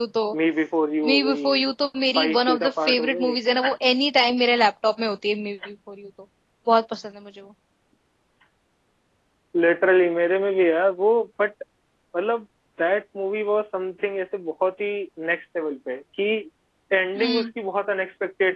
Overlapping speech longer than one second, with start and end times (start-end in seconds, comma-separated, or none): 2.2-3.4